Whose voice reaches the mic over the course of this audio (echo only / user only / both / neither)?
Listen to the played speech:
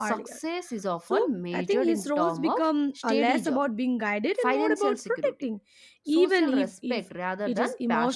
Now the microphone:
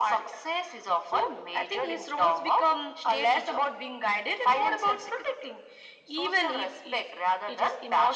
echo only